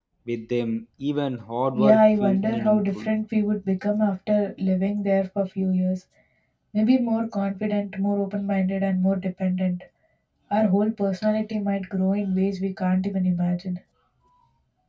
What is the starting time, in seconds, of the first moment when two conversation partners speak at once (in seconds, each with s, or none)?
1.7 s